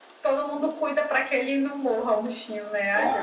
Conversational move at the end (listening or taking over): taking over